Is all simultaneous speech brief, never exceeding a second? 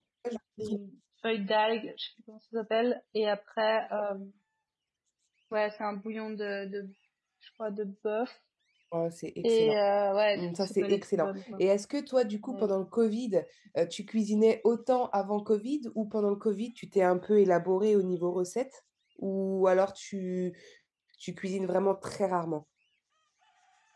No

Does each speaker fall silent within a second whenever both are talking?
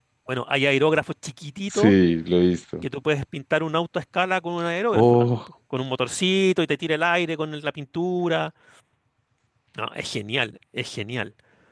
Yes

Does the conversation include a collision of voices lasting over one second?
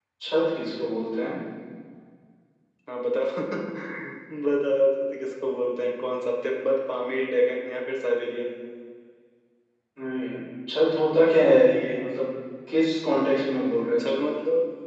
No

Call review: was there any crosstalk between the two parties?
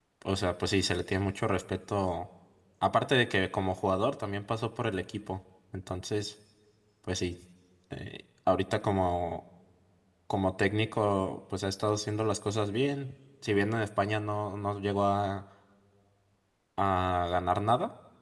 No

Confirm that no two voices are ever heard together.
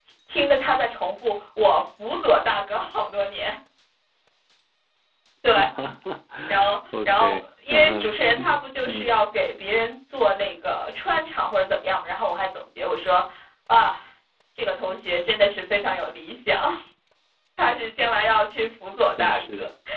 No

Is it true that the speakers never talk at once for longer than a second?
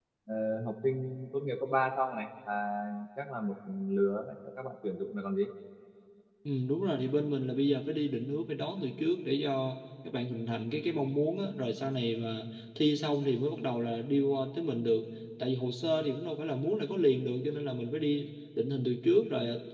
Yes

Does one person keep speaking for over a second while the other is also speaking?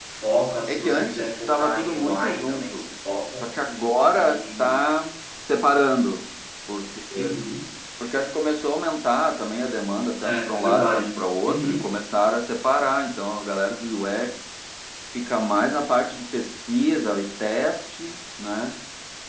Yes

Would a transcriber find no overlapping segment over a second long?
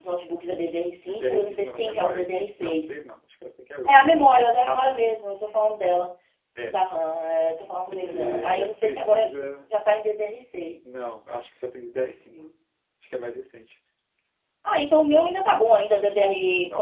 No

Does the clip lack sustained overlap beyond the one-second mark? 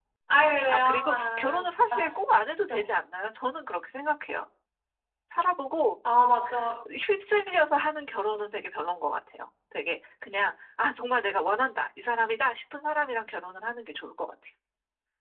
No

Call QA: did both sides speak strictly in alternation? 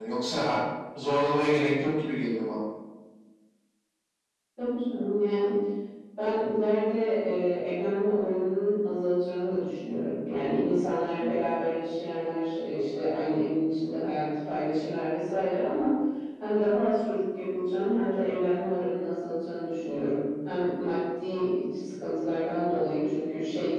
Yes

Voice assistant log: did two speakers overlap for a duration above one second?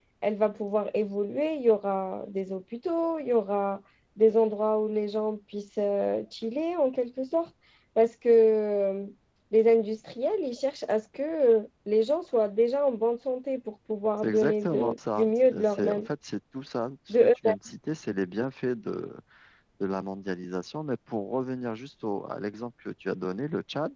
Yes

